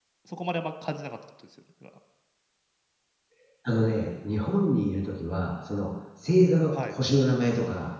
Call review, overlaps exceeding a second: none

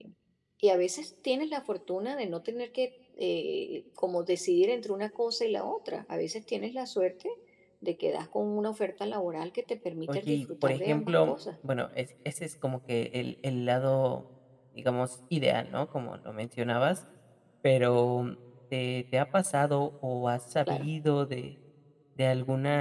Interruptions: present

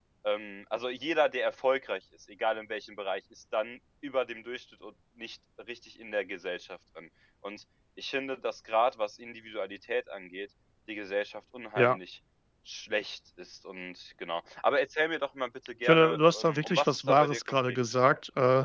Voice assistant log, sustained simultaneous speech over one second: present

